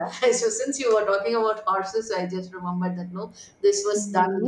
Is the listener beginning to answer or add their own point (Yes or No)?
Yes